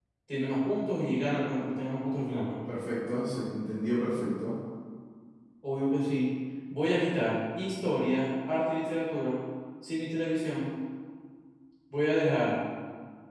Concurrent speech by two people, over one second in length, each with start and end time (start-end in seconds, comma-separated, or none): none